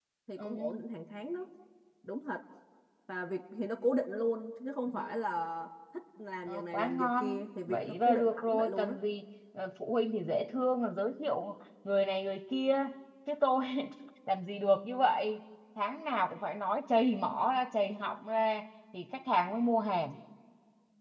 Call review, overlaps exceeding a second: present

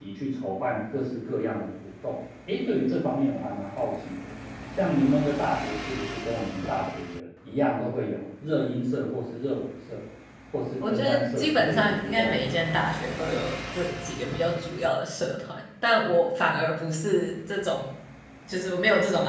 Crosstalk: present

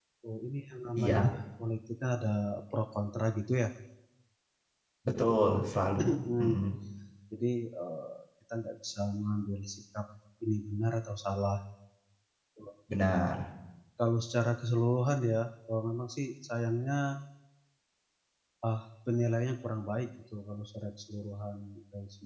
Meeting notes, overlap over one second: none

